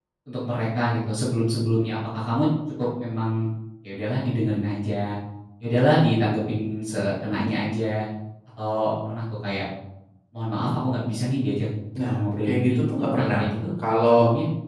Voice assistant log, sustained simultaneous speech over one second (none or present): present